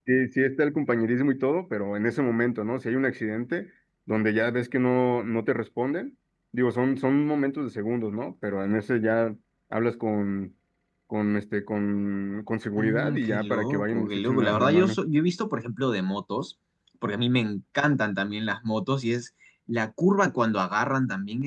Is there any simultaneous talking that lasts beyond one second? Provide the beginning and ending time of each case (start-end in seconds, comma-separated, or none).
12.8-15.0